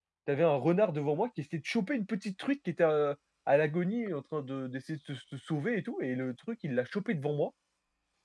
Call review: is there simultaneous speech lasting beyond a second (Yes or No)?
No